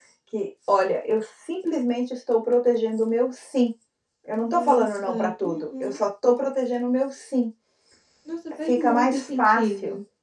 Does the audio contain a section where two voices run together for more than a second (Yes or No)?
Yes